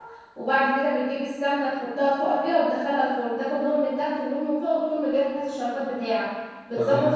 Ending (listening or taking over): listening